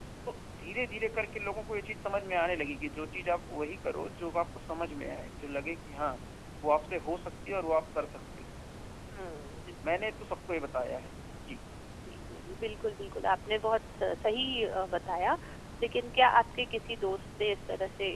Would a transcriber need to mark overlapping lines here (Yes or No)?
No